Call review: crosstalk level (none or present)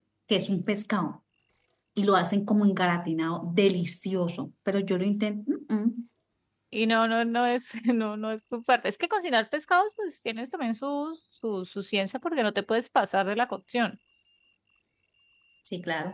none